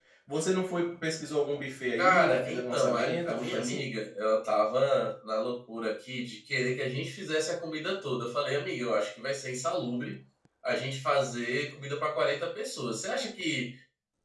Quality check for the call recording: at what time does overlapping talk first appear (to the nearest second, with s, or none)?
2 s